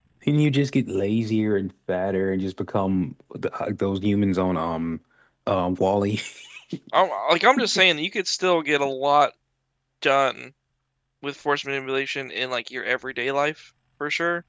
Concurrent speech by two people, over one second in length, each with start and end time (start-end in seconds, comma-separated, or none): none